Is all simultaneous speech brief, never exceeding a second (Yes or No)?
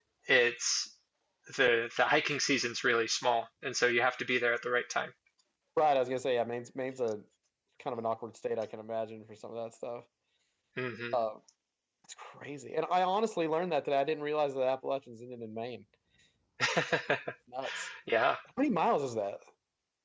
Yes